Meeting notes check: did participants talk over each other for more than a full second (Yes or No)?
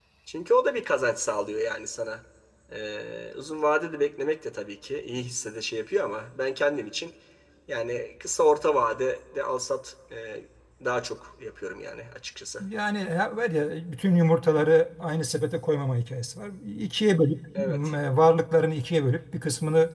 No